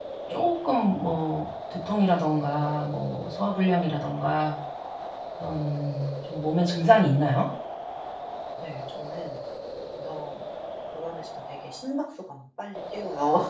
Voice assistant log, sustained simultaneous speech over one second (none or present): none